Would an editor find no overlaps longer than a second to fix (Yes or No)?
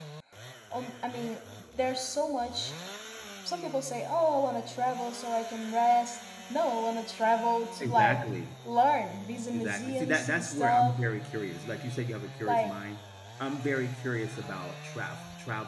No